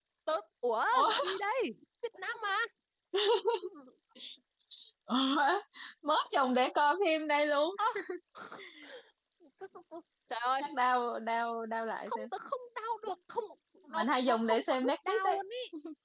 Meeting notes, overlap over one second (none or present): present